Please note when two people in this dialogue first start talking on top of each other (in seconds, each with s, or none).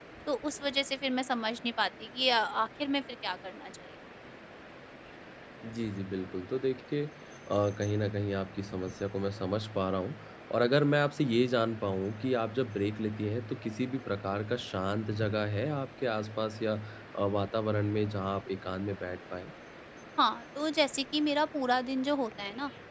none